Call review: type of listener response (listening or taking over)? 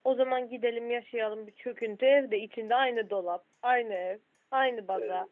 listening